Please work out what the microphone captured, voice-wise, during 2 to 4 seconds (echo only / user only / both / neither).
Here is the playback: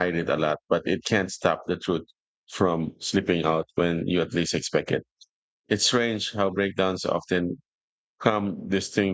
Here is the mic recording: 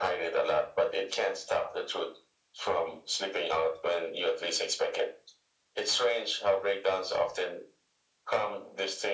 echo only